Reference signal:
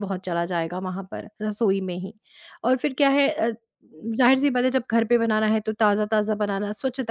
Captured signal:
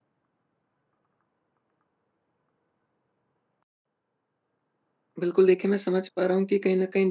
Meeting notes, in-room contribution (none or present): present